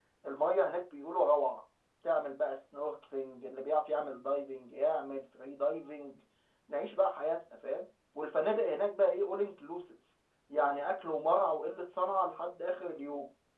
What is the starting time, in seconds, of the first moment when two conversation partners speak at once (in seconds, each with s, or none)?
none